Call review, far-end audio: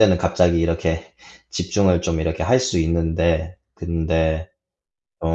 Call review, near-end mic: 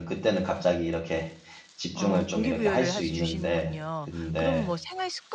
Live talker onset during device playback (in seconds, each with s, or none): 1.9 s